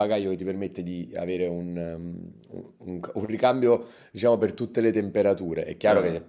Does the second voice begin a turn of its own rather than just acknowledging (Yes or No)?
No